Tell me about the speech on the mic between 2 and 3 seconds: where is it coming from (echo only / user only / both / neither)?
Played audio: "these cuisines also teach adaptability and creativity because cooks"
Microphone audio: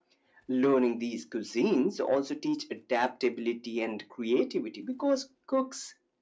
echo only